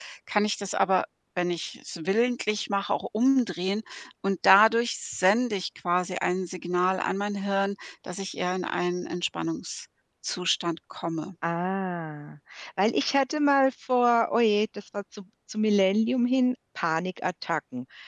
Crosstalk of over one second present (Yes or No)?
No